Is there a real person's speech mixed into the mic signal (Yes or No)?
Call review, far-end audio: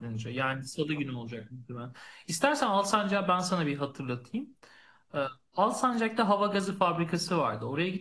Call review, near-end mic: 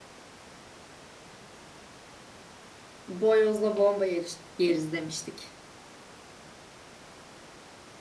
Yes